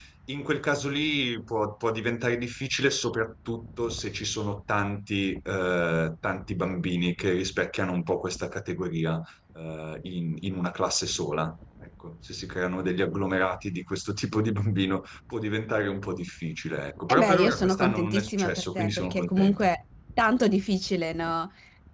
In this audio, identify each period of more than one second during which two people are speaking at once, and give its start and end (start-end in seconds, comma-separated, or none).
17.1-19.7